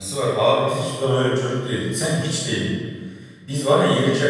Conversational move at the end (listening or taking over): listening